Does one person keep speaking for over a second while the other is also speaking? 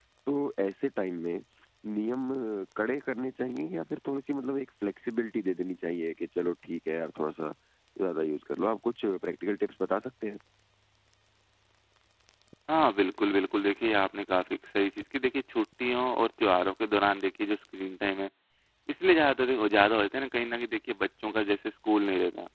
No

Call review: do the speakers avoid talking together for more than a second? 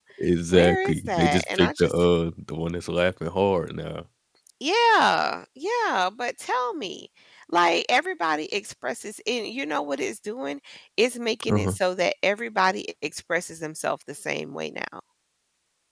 No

